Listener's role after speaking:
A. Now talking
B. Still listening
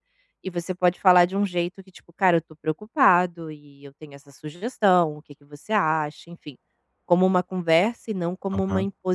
A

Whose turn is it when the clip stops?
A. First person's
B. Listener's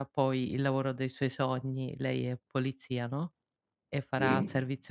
A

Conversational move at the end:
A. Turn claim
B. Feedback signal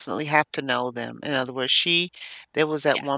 B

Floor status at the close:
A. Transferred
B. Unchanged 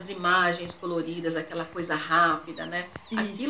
B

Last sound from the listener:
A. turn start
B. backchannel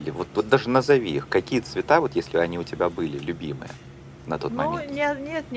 A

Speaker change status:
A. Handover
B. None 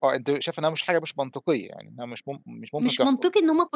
A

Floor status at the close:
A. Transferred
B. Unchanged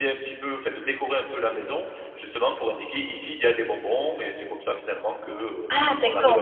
A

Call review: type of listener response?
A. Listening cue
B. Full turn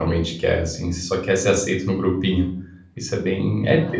B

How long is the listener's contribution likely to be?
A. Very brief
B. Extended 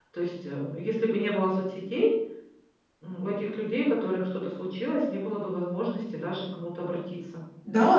B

